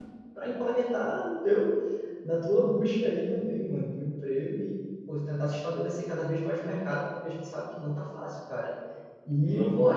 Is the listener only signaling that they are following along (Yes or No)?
Yes